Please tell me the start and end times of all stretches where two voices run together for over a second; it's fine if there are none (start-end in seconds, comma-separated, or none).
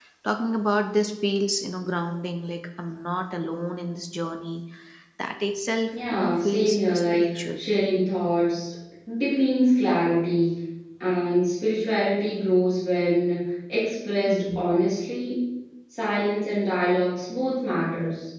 5.9-7.6